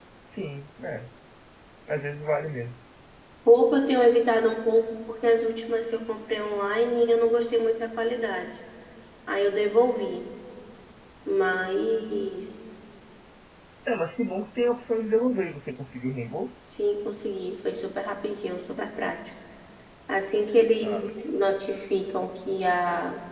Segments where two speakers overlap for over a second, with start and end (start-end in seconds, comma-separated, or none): none